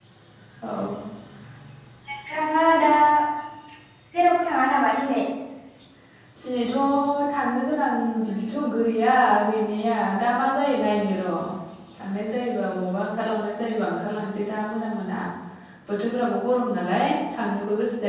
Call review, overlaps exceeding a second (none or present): none